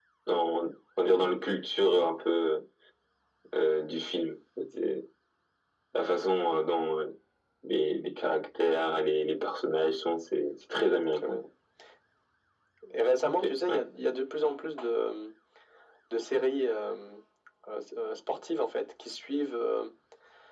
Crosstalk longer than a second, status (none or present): none